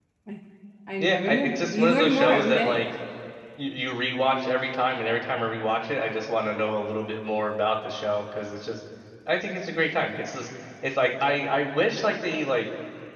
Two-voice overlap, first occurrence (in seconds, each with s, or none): 1.0 s